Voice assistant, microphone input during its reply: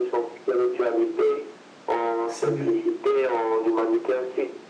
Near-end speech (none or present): present